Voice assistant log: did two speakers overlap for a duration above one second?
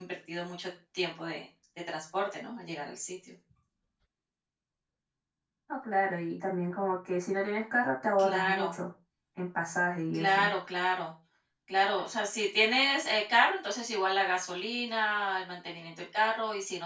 No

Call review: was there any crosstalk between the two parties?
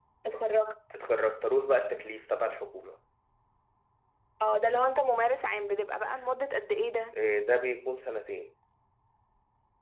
No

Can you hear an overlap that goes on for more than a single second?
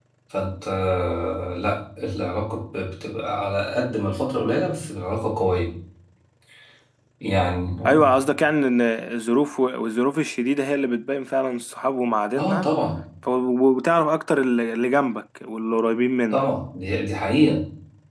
No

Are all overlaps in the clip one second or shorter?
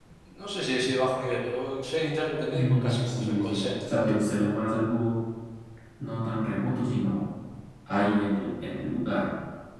No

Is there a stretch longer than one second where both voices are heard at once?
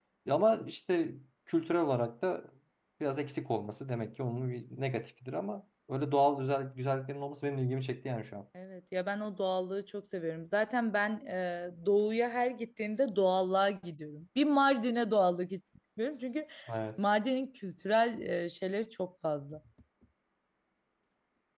No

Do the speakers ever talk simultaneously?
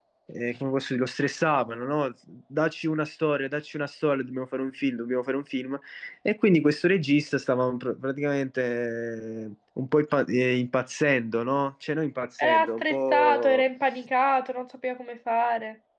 Yes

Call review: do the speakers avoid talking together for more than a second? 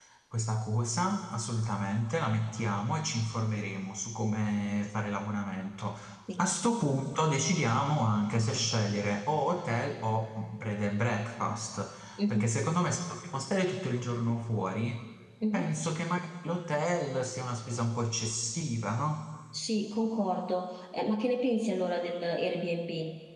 Yes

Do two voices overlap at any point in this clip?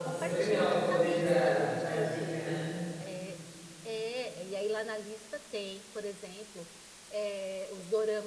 Yes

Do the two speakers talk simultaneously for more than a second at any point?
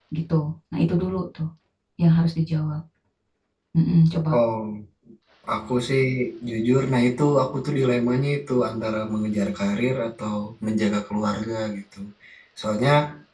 No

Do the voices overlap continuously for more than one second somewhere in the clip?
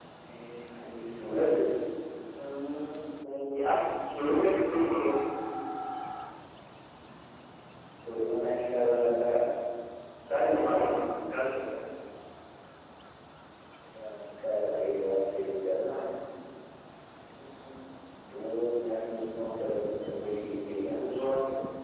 No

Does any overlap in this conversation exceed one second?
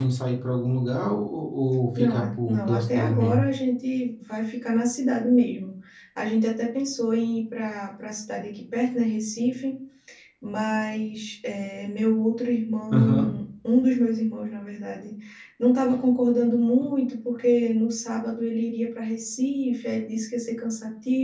Yes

